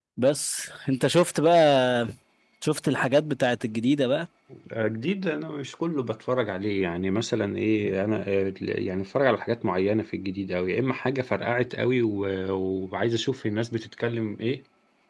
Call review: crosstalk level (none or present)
none